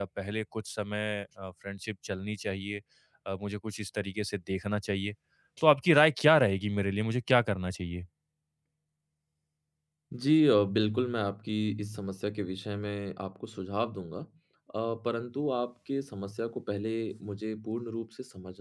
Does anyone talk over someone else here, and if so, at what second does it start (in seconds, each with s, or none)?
none